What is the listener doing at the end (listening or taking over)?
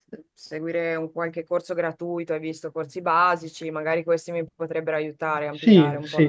taking over